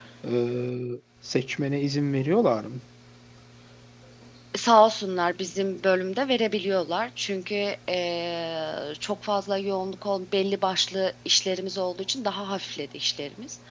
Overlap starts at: none

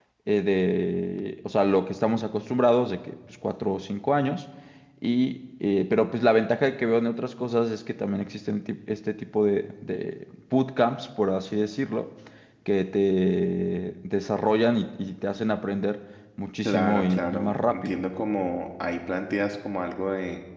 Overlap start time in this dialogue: 16.6 s

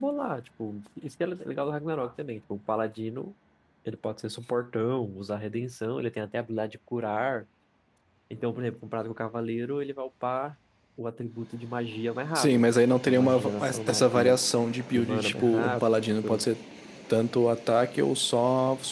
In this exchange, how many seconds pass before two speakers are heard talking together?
12.4 s

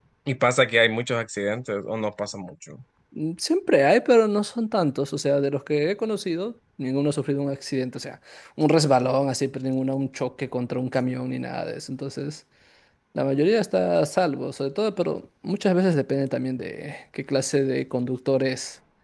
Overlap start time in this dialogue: none

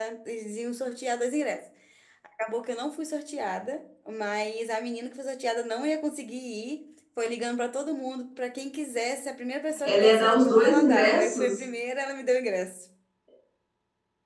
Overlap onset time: 9.8 s

